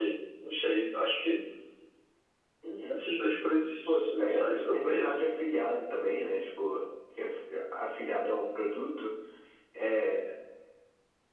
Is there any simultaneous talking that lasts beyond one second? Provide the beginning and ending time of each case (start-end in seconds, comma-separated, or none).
3.9-5.2